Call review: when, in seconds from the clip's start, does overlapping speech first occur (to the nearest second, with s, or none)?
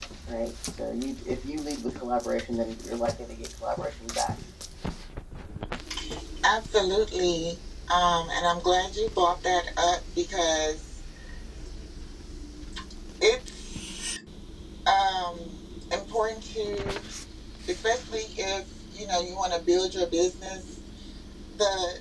none